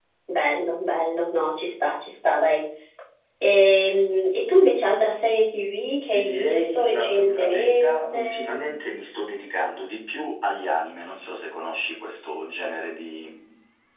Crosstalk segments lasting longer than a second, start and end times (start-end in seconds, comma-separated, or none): 6.1-8.8